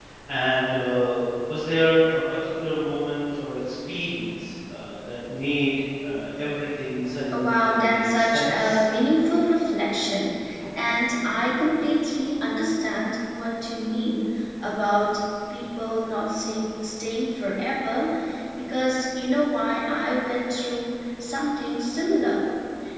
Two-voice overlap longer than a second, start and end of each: 7.3-8.9

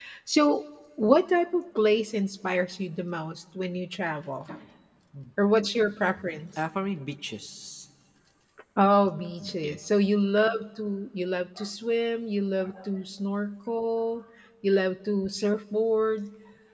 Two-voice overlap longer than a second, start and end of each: none

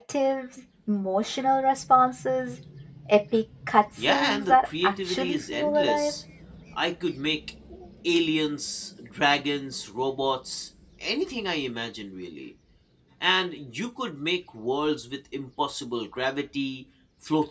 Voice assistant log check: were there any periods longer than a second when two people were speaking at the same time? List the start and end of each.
4.1-6.1

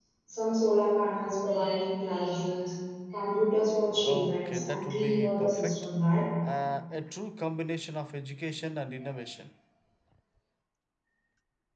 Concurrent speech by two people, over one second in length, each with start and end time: 4.0-5.8

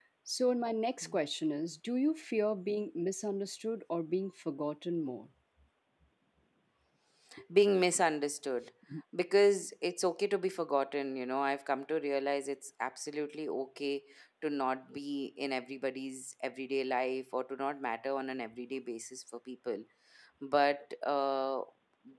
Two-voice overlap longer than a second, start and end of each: none

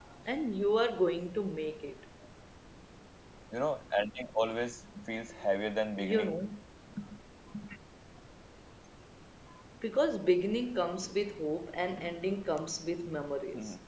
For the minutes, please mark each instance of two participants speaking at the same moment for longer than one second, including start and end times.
none

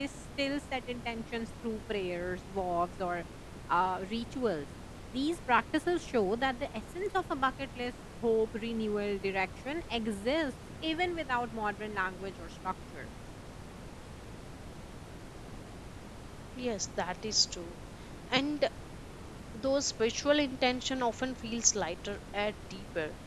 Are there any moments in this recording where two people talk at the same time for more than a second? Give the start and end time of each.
none

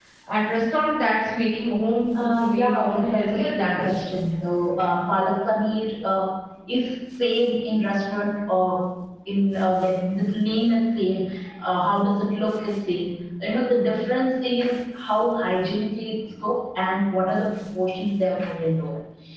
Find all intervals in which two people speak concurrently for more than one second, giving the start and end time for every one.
2.2-4.1

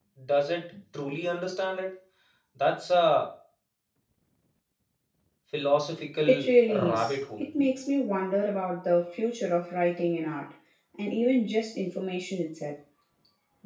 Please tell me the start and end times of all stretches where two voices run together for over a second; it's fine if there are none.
6.2-7.4

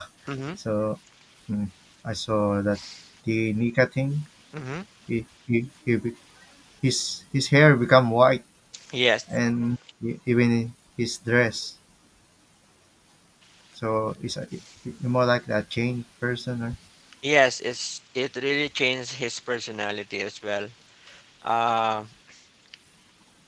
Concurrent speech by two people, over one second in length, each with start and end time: none

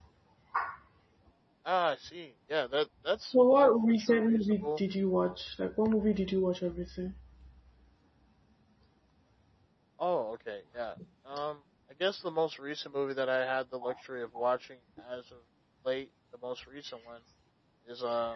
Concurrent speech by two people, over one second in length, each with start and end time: 3.5-4.8

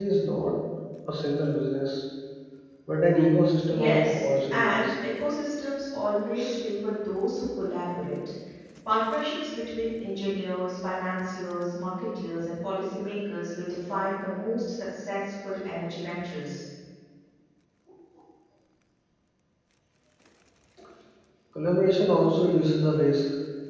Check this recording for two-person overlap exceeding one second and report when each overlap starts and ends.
3.7-4.9

